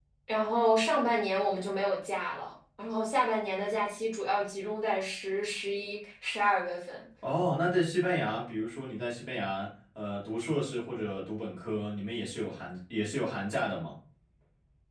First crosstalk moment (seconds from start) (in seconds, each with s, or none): none